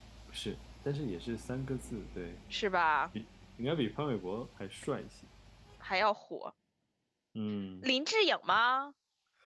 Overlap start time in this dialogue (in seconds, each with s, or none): none